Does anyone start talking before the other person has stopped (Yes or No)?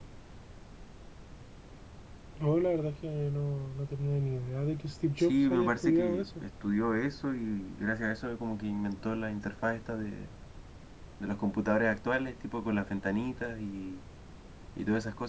Yes